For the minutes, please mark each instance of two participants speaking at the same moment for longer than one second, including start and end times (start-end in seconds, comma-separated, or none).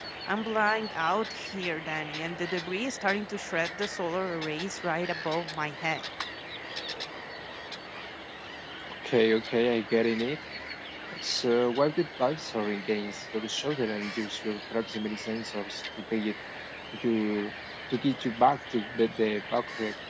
none